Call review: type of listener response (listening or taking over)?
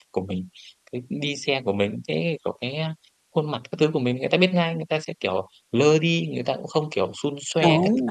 taking over